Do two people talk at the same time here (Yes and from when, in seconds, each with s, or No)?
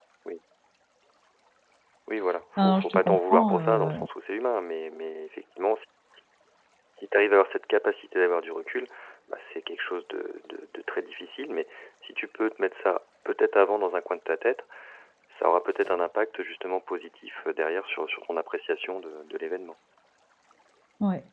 Yes, from 2.6 s